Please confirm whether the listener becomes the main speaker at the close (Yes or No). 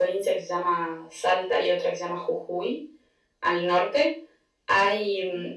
No